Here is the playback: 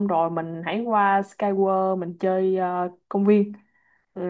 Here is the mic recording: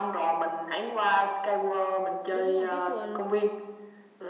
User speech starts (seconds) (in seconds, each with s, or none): 2.3 s